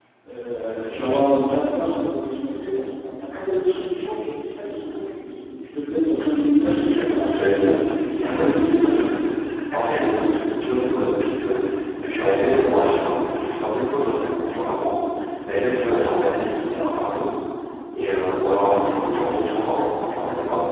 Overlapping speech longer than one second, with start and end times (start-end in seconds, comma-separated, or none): 6.6-9.1